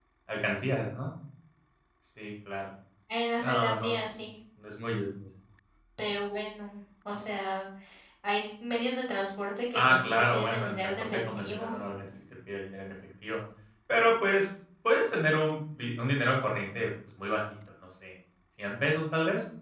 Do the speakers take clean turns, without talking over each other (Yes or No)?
No